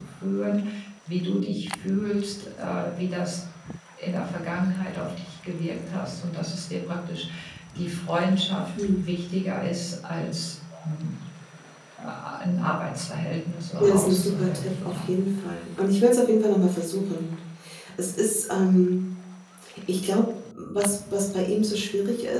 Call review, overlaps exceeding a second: present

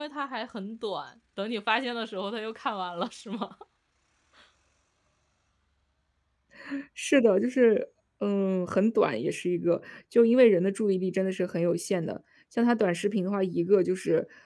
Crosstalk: none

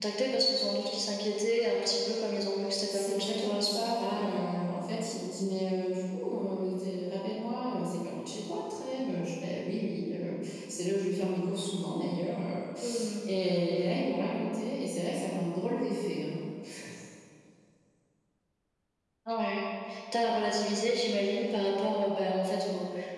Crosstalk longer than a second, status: present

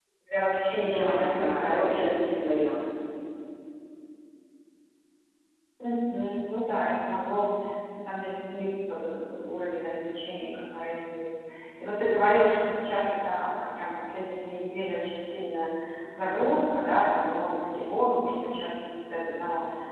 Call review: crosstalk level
present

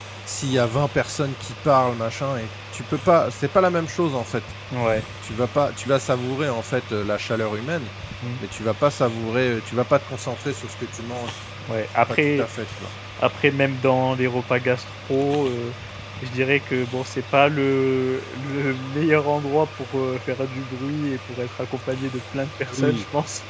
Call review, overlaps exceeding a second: none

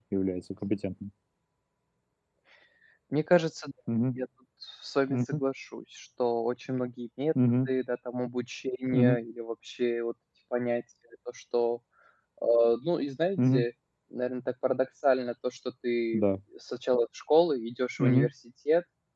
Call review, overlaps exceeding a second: none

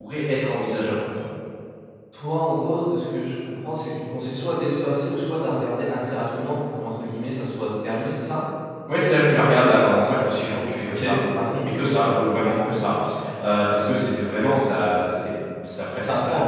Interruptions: present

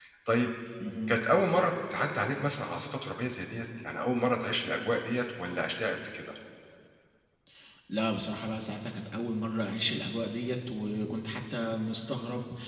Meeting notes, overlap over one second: none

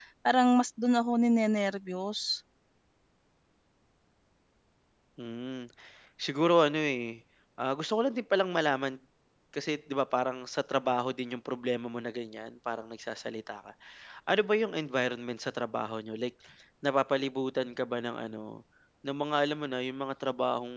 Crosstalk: none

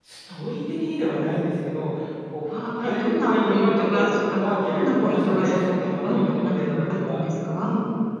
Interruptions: present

